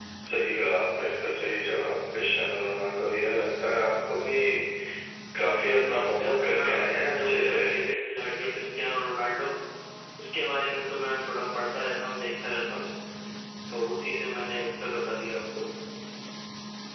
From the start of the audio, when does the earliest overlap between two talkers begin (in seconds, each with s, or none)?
5.3 s